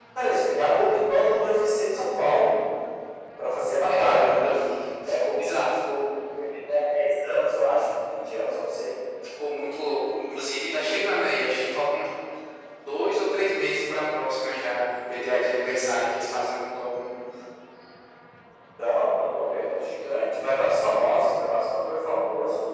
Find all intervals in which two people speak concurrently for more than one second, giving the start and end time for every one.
none

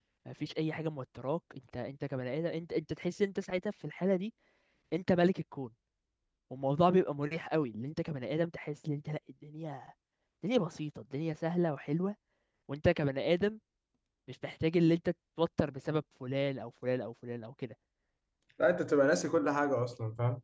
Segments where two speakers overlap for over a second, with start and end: none

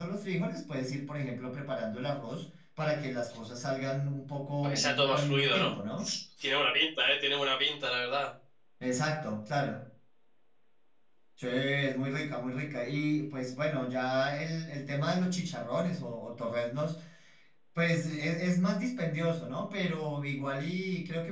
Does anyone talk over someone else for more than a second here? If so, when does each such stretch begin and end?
4.6-6.1

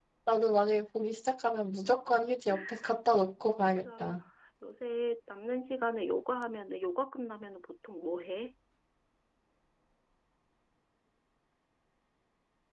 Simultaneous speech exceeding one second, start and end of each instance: none

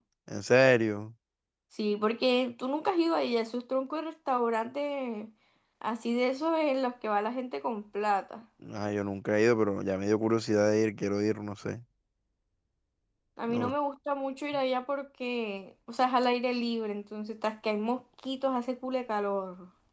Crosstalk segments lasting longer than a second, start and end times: none

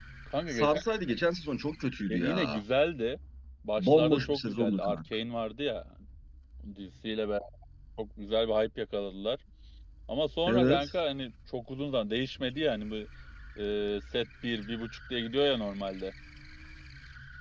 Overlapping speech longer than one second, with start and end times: 3.8-5.0

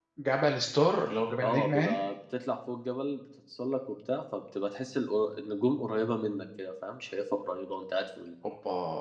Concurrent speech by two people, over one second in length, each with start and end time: none

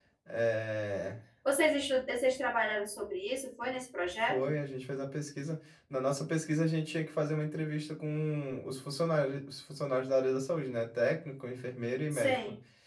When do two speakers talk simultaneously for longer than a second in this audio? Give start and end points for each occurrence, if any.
none

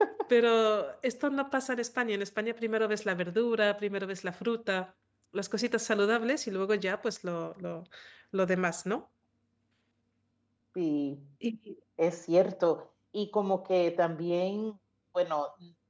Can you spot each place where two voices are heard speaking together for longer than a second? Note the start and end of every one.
none

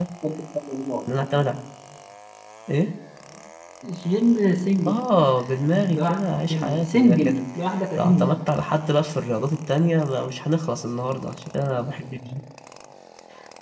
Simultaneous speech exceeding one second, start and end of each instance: 5.7-7.5

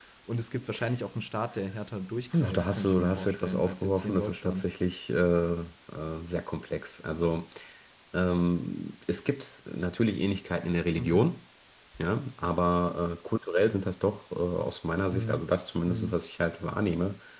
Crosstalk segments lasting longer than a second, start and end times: 2.3-4.7

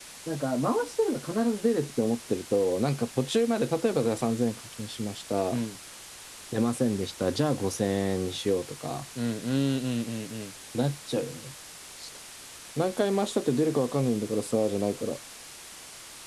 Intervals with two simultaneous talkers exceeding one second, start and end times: none

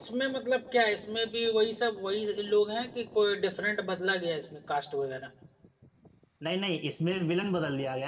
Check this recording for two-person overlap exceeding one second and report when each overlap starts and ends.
none

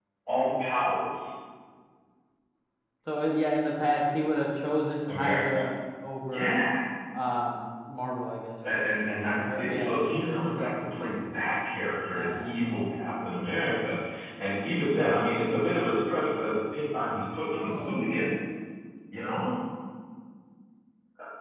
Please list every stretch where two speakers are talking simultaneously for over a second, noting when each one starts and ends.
9.3-10.9

